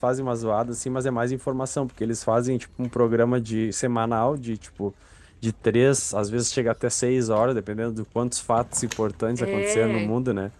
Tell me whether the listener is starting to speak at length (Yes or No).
No